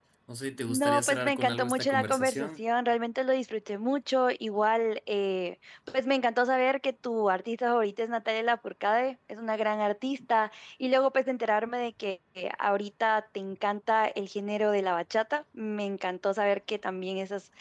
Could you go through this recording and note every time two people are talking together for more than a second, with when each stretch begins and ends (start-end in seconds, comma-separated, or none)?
0.7-2.6